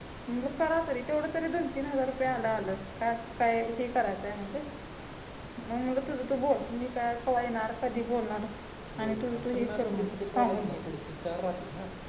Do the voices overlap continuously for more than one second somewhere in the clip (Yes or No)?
Yes